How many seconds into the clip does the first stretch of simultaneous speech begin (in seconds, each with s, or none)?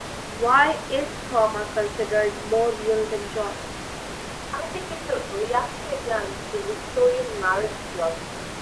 none